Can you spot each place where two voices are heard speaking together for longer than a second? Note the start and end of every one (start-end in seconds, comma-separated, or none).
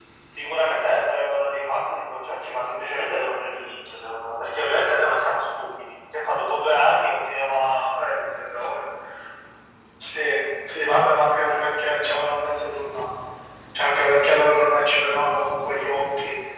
none